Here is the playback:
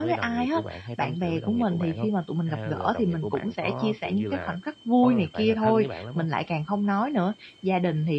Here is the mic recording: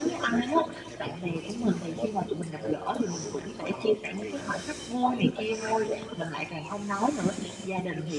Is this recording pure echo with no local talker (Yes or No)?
Yes